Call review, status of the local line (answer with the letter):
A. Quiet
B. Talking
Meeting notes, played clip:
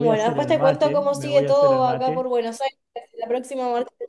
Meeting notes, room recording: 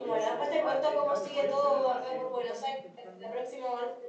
B